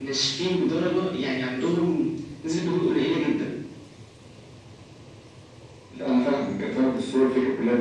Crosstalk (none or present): none